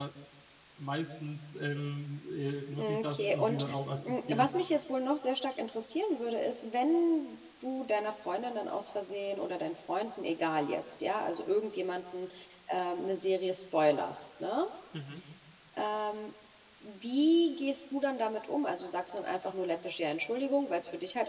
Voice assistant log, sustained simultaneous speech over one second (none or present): present